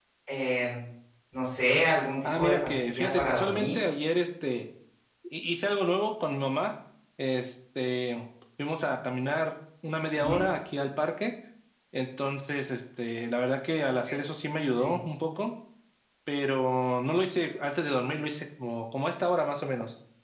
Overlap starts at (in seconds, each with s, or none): 2.2 s